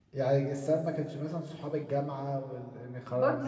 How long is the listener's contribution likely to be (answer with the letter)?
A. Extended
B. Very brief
A